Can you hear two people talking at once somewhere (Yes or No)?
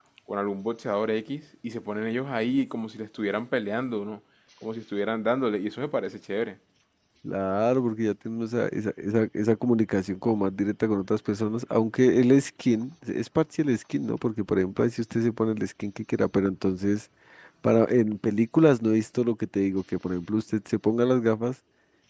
No